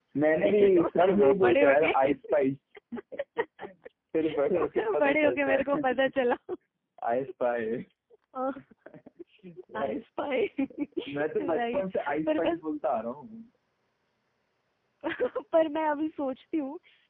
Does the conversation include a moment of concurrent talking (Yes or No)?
Yes